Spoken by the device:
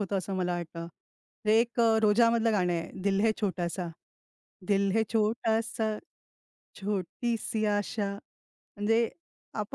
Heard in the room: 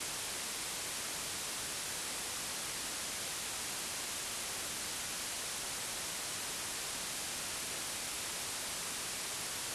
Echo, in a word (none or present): none